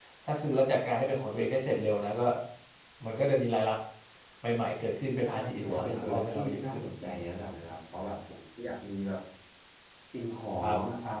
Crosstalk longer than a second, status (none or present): present